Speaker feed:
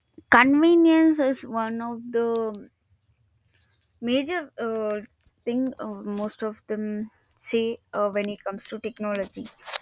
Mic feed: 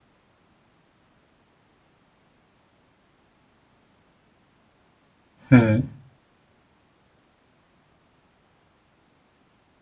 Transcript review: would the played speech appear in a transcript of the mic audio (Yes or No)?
No